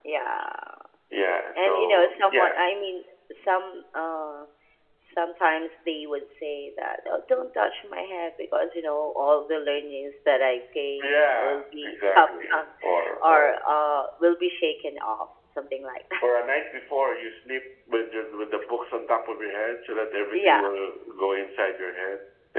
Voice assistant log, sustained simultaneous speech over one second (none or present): present